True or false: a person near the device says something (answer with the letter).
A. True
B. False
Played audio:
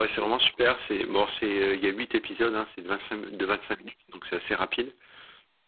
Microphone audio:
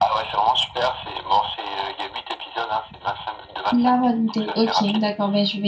A